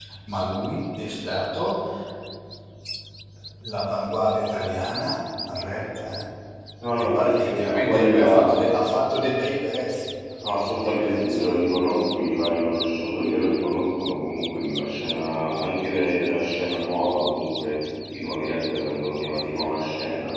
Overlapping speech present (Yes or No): Yes